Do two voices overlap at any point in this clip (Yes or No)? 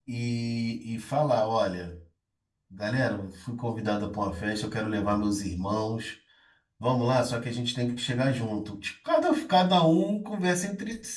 No